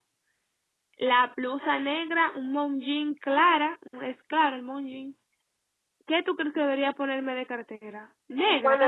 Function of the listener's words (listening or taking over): taking over